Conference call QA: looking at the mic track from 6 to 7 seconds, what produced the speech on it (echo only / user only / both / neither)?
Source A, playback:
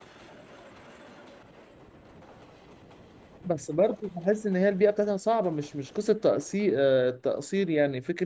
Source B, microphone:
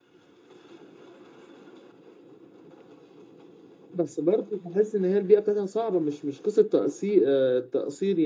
echo only